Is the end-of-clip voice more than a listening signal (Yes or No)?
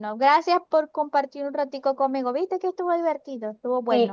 Yes